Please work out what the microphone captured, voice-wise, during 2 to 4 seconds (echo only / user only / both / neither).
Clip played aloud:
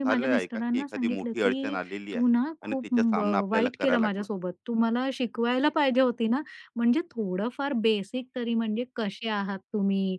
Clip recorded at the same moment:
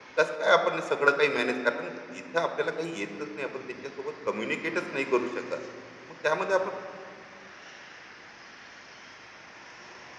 user only